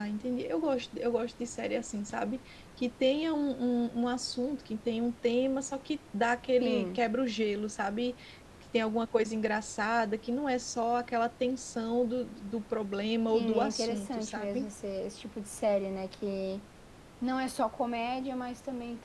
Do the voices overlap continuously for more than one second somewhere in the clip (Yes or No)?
Yes